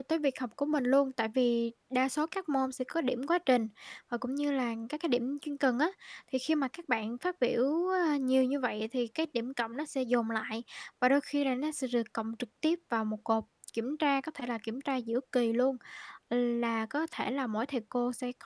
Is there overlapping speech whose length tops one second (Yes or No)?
No